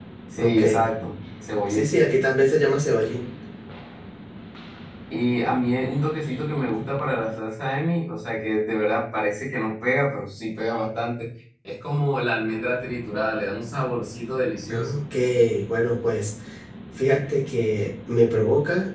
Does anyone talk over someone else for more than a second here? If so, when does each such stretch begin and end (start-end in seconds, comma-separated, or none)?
none